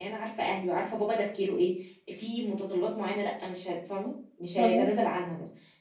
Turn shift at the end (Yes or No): No